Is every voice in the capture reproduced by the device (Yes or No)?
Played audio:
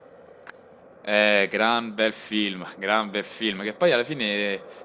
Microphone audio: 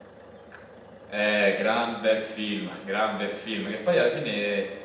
Yes